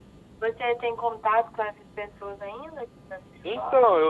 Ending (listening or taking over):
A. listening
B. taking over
B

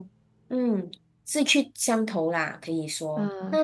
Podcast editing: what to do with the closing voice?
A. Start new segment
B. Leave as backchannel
A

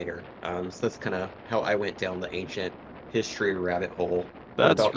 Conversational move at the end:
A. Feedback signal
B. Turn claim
B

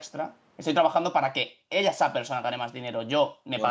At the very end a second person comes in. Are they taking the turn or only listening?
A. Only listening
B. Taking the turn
A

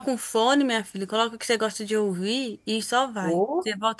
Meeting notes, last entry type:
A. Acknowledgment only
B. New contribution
B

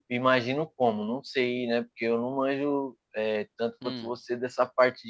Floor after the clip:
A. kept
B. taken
A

